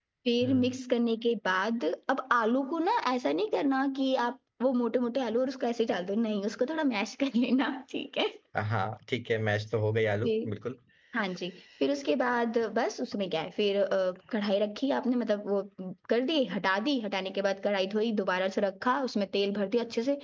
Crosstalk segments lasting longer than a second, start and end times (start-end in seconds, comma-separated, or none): none